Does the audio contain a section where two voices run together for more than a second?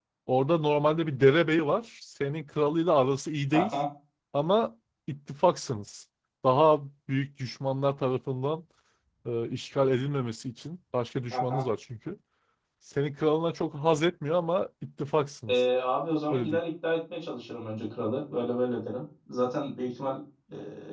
No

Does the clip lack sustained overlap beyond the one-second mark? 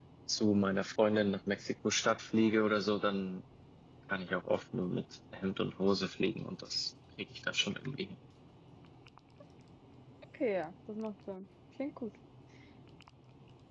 Yes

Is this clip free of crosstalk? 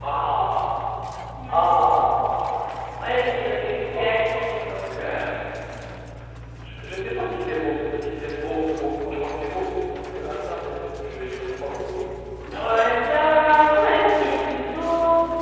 No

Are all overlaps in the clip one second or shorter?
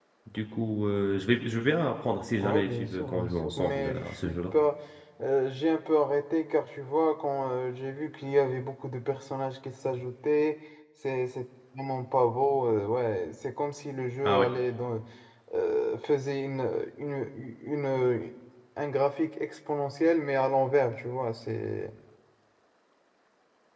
No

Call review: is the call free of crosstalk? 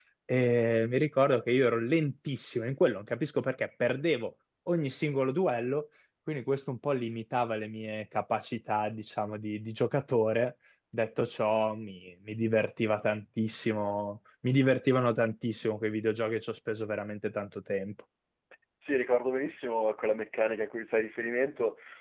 Yes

